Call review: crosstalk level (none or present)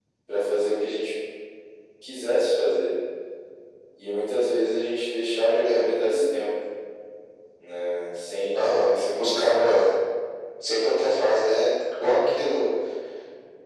present